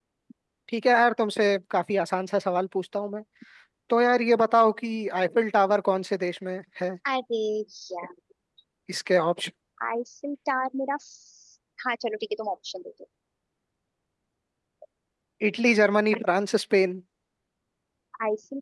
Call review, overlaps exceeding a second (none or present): none